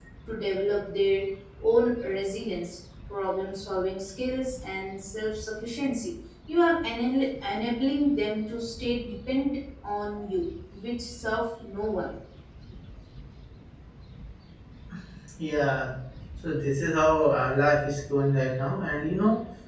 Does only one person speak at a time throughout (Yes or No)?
Yes